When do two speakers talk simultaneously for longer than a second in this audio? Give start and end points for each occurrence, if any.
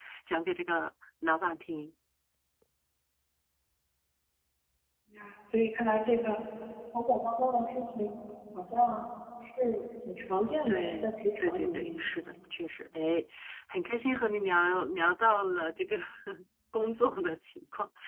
10.7-12.0

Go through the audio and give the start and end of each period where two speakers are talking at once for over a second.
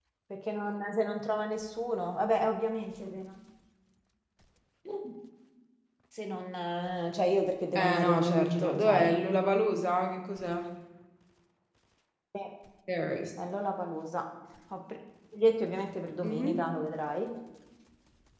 7.8-9.1

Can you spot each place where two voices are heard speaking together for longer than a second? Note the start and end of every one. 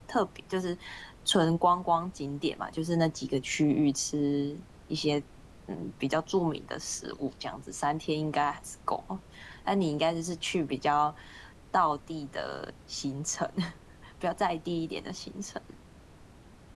none

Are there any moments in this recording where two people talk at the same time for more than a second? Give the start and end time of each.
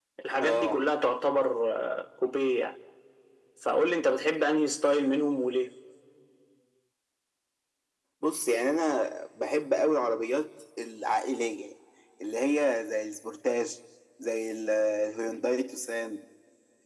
none

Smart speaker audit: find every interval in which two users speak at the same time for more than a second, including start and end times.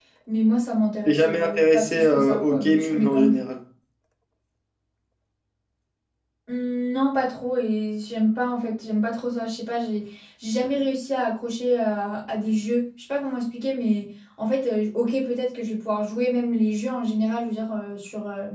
1.1-3.4

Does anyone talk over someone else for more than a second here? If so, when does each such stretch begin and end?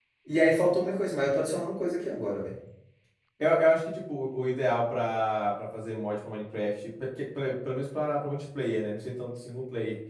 none

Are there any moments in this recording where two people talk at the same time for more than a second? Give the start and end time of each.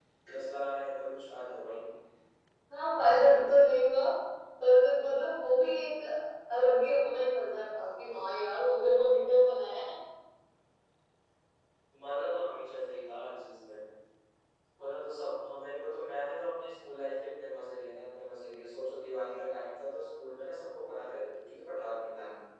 none

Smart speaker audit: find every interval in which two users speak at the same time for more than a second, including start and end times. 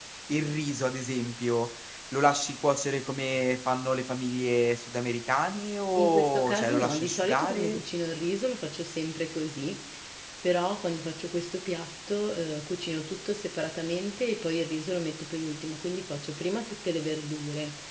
6.0-7.8

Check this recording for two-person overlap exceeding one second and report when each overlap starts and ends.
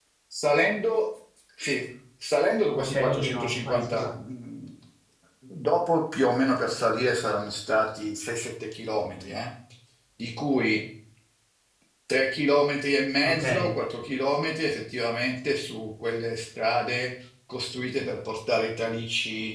2.8-4.1

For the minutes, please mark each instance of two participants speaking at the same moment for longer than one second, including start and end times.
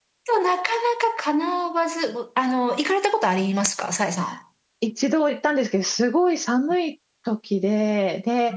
none

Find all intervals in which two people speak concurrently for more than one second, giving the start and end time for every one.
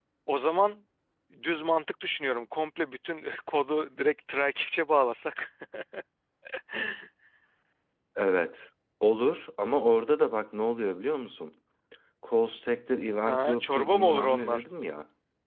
13.2-14.6

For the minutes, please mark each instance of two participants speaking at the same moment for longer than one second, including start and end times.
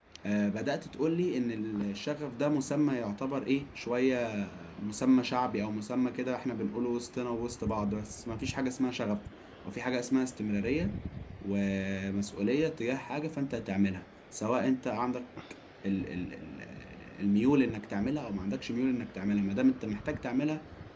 none

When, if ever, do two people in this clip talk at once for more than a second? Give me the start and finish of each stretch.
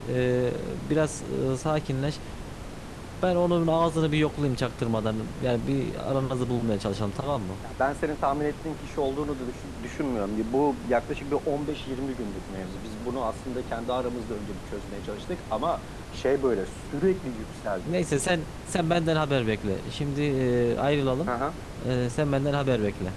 none

